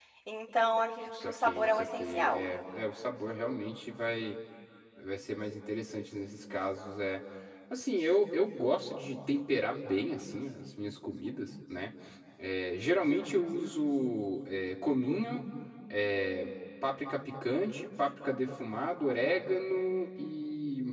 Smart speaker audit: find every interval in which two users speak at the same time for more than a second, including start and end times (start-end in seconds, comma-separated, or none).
1.2-2.5